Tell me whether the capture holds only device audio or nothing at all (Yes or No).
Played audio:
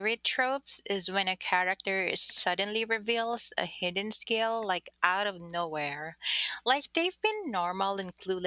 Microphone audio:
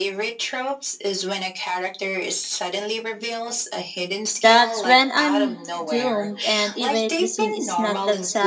No